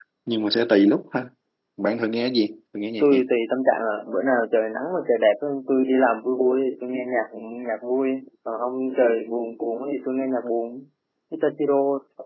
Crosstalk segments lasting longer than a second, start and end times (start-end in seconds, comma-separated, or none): none